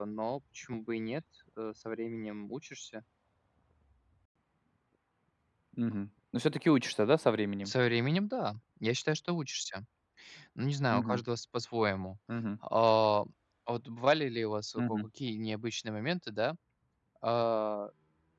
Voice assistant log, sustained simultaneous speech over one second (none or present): none